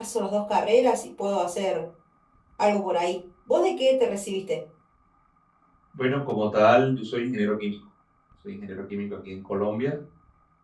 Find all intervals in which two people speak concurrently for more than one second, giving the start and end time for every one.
none

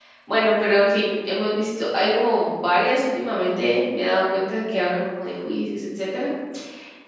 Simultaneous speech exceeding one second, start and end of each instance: none

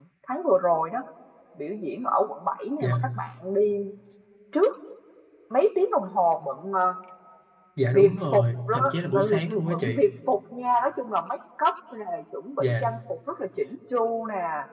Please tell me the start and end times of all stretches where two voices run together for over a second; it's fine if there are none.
7.9-10.0

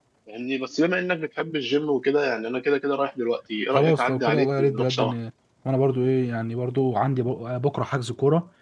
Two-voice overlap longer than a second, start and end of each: 3.7-5.1

